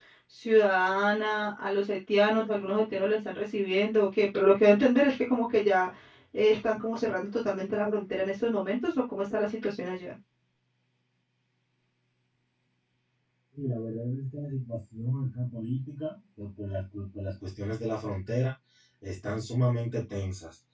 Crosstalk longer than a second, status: none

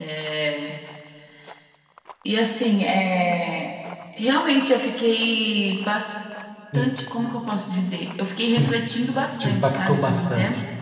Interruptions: present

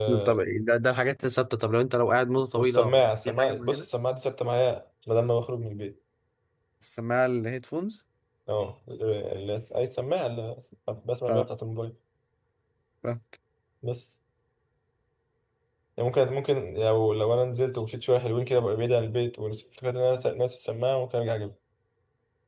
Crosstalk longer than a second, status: present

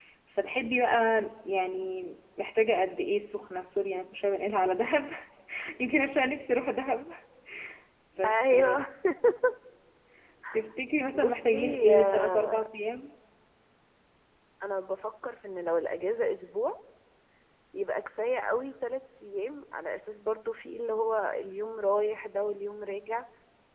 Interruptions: present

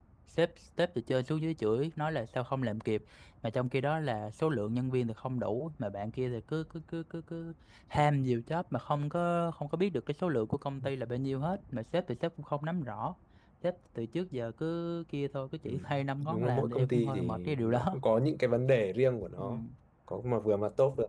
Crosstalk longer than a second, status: present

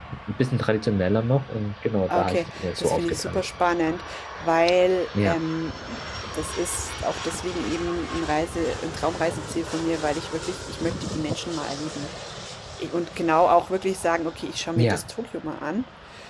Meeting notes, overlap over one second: present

